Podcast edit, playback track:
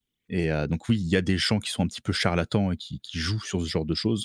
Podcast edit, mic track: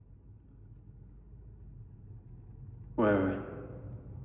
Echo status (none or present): none